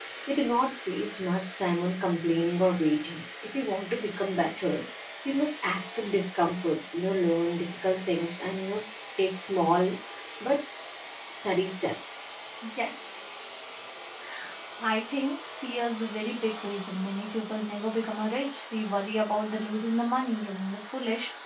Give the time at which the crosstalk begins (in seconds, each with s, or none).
none